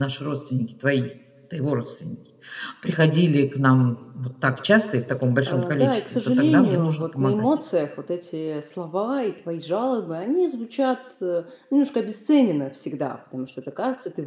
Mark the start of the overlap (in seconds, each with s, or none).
5.5 s